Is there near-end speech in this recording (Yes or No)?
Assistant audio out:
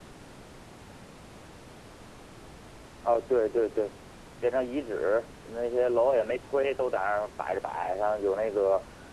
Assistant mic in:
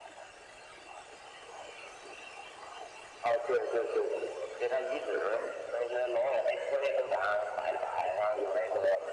No